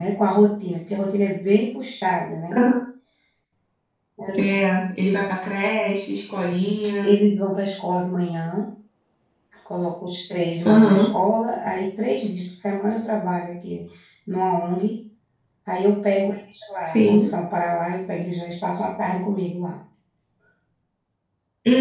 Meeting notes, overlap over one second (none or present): none